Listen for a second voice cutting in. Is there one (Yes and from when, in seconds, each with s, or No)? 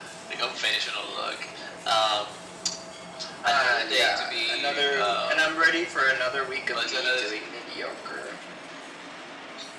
Yes, from 3.4 s